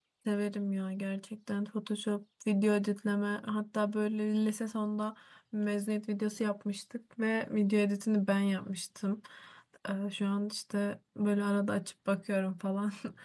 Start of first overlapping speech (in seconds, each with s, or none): none